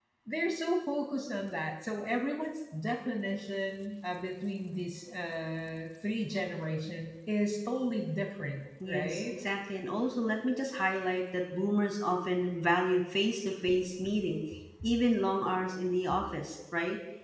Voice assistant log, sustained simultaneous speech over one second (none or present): none